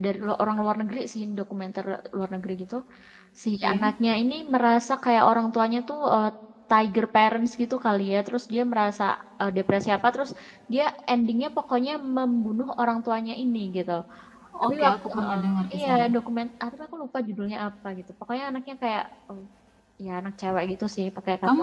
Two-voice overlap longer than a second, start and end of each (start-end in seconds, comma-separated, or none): 14.7-16.1